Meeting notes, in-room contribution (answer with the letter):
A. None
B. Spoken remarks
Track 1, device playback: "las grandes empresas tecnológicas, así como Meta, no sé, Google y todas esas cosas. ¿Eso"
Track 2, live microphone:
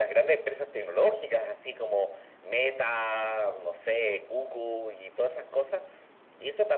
A